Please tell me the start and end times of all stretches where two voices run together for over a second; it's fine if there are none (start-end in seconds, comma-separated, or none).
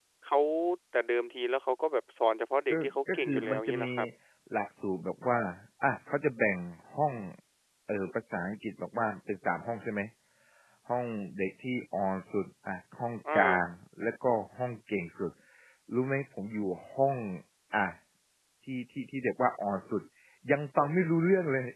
2.7-3.9